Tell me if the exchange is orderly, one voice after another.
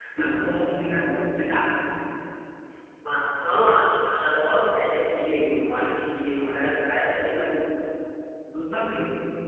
Yes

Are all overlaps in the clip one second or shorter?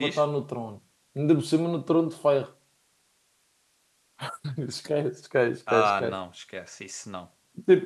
Yes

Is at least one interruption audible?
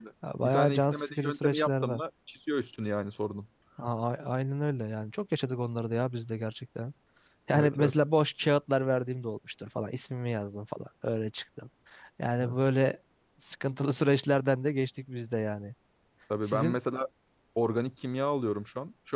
Yes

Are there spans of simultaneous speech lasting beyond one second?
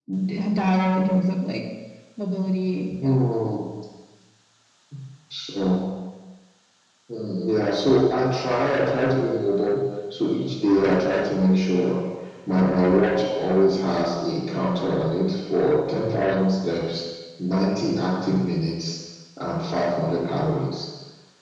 No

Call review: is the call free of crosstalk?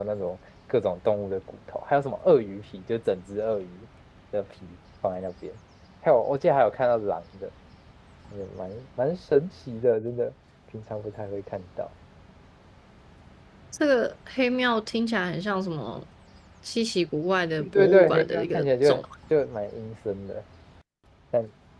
No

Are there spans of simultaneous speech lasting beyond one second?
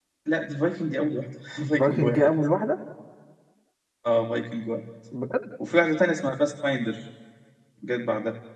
No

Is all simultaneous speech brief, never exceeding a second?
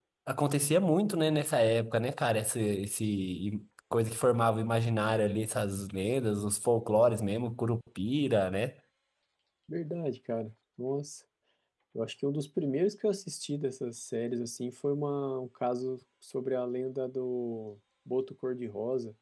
Yes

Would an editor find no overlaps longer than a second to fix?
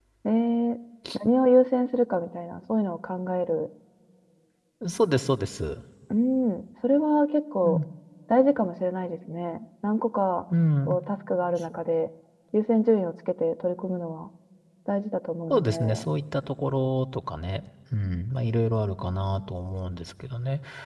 Yes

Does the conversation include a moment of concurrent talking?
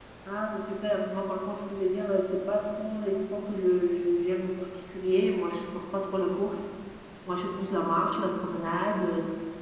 No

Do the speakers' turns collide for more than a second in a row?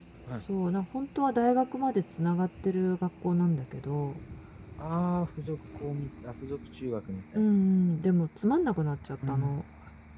No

